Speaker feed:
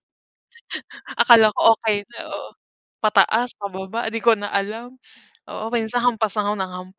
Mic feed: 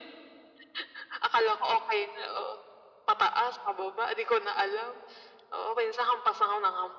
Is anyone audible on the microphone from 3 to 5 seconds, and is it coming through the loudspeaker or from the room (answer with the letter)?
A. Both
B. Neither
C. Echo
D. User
C